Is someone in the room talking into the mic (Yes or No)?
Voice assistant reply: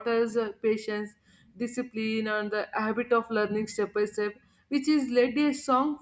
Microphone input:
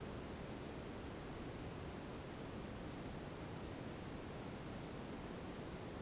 No